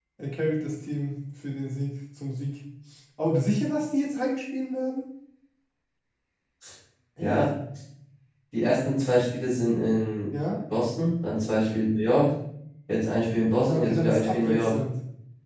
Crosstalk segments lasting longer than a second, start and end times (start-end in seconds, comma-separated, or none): 13.6-14.8